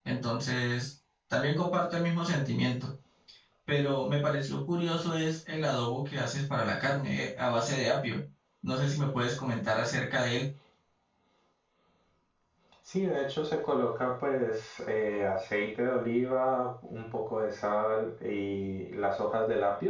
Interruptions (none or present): none